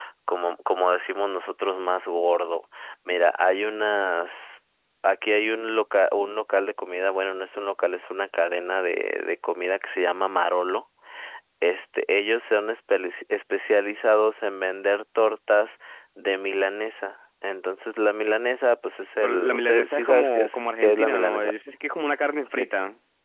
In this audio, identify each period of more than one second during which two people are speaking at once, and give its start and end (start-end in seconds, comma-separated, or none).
19.2-21.5